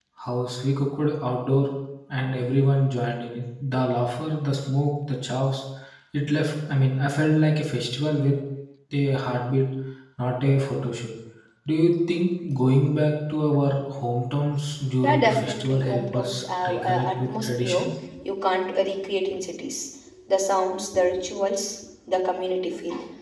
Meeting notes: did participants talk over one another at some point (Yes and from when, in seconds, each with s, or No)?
Yes, from 15.0 s